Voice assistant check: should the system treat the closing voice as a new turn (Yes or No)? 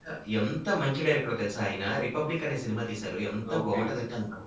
No